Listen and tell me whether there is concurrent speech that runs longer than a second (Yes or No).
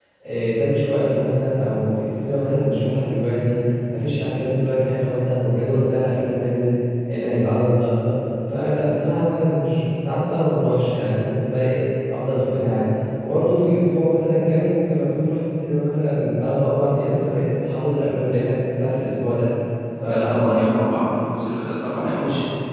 No